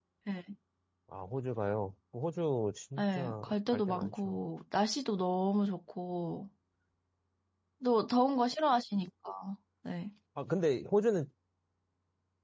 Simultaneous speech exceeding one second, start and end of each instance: 3.0-4.4

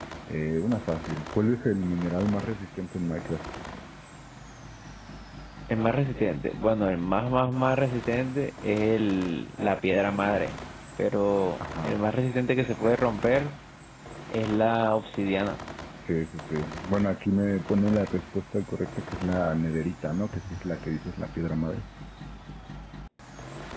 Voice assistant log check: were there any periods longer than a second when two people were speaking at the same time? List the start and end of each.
none

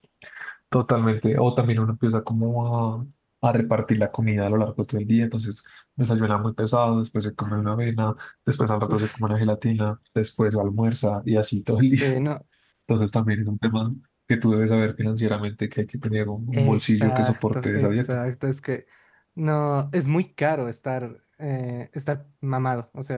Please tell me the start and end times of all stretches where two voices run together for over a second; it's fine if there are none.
16.5-18.2

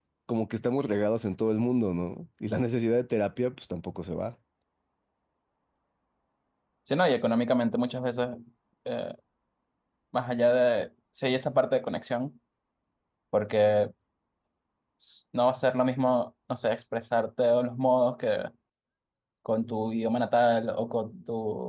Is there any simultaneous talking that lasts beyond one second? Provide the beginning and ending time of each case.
none

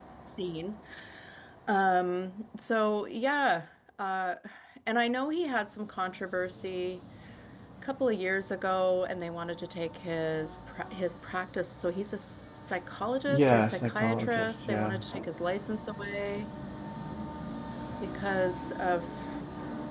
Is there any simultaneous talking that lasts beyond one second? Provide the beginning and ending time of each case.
13.3-15.0

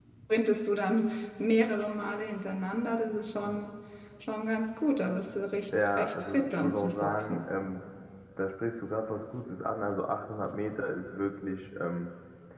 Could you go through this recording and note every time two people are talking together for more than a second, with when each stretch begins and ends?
6.0-7.5

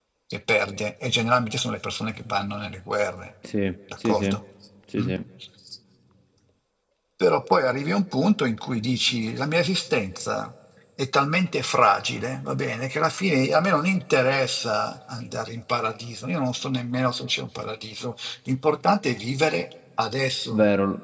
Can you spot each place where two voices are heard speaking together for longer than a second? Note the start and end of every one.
none

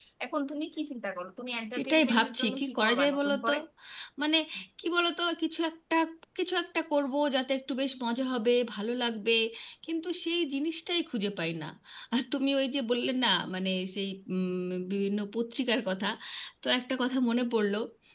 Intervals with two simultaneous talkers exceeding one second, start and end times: 1.8-3.5

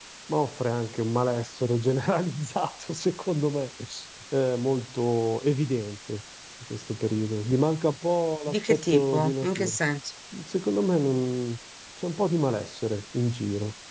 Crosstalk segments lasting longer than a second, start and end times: 8.5-9.8

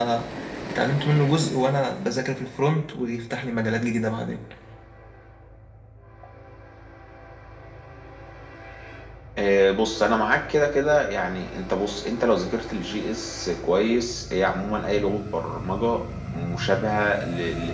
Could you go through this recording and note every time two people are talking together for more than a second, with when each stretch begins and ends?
none

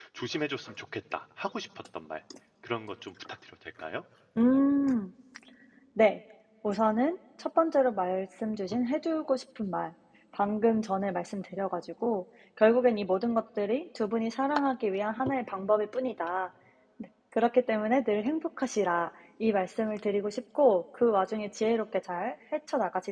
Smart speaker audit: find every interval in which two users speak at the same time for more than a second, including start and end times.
none

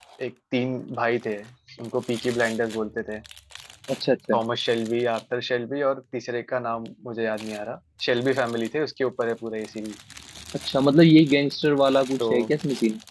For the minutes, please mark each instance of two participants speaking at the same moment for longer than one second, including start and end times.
none

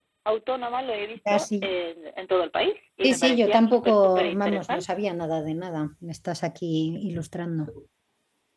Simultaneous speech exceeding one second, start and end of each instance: 3.0-5.0

